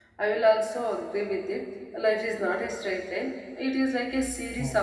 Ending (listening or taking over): listening